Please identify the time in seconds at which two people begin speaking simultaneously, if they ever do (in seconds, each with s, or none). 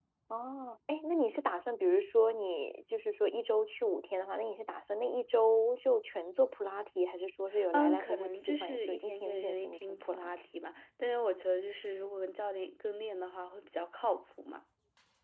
7.5 s